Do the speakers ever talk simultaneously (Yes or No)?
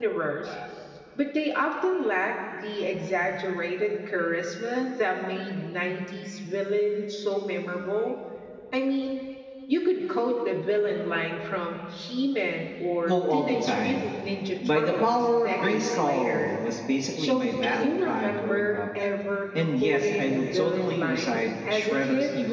Yes